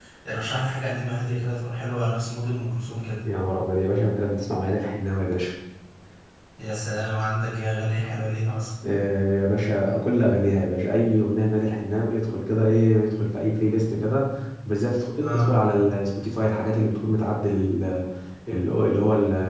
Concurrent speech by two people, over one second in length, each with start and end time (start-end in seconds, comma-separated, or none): none